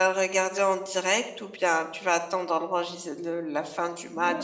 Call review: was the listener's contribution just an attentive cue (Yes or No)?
No